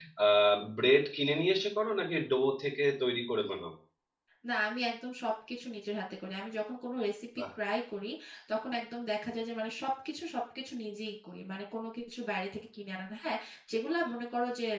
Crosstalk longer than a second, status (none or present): none